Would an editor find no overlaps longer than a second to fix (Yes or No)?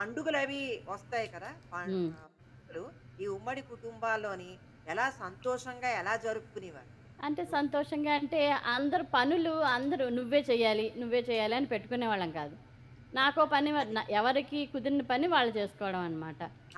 Yes